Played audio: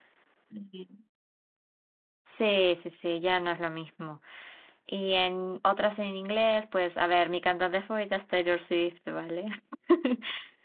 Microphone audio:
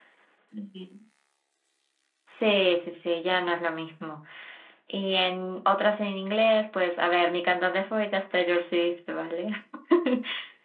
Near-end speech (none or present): none